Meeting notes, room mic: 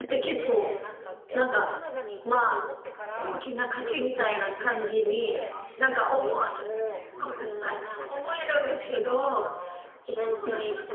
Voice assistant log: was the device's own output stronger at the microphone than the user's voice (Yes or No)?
No